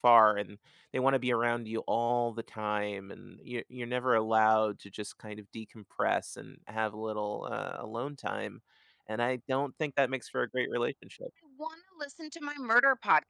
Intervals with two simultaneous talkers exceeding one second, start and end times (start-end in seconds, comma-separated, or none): none